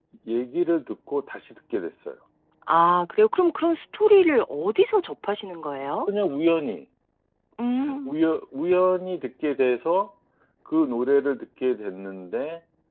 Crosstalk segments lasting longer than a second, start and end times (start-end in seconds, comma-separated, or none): none